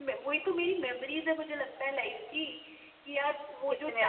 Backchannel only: Yes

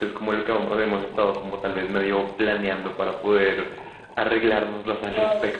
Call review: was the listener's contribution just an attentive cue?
No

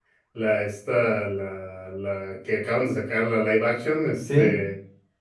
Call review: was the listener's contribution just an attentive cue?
Yes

